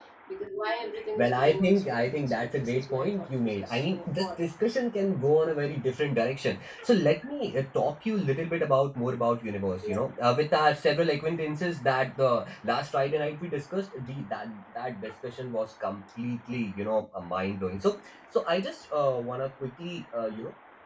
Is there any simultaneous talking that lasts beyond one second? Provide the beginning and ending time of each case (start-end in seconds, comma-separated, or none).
1.2-4.3